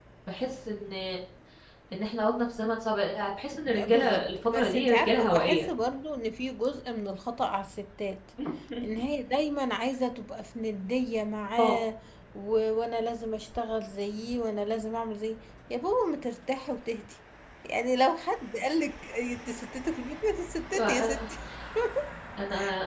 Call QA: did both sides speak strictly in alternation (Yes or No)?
No